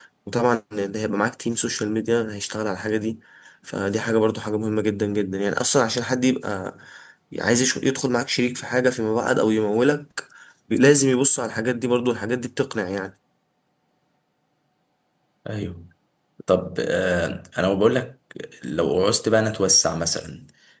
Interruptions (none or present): none